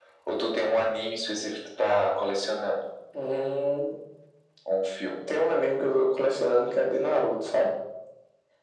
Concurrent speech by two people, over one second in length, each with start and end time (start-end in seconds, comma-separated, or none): none